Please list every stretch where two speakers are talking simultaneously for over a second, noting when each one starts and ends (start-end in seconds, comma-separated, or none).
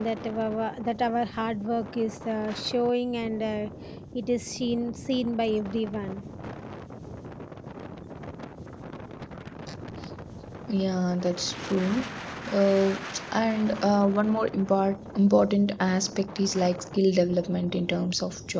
none